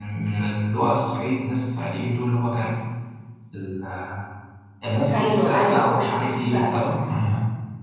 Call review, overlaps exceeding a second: present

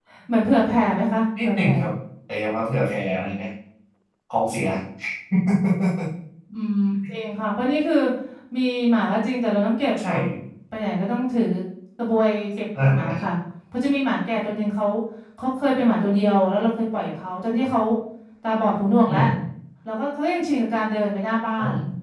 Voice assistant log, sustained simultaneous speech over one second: none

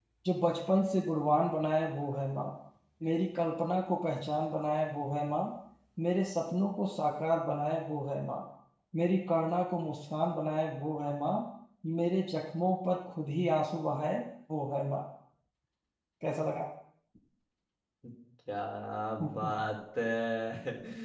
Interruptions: none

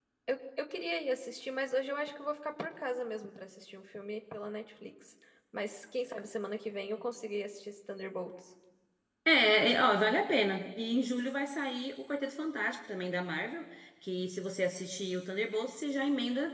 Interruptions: none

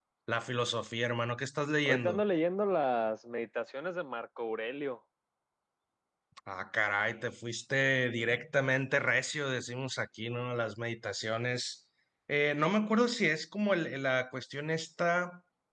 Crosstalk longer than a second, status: none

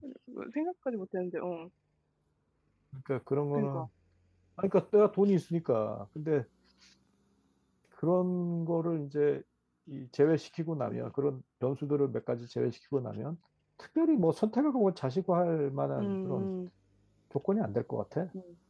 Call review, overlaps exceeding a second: none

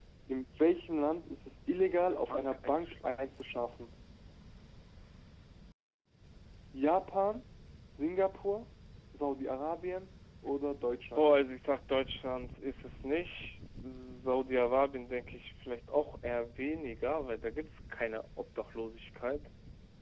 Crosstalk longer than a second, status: present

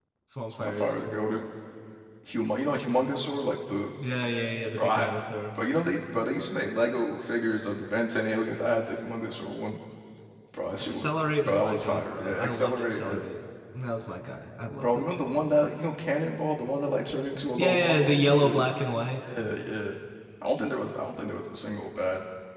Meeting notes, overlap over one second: present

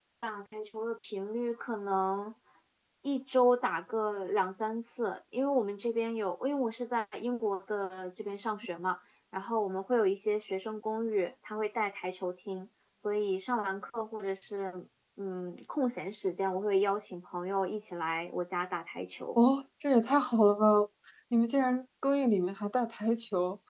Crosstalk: none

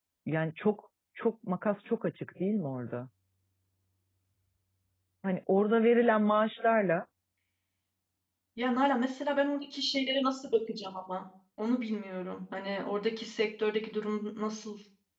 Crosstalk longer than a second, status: none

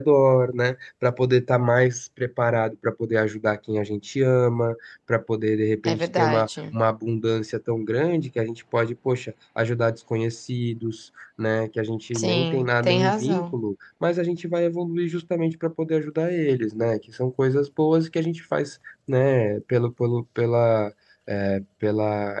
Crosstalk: present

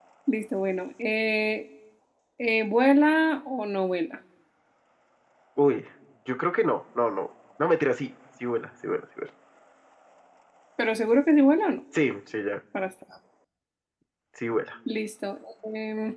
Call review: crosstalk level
none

